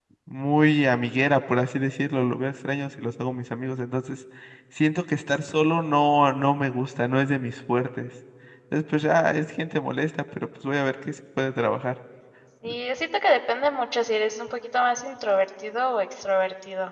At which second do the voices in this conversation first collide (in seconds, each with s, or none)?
none